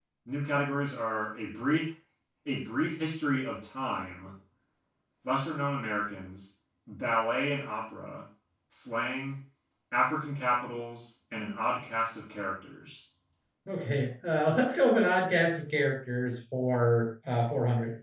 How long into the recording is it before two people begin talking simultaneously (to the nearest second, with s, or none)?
none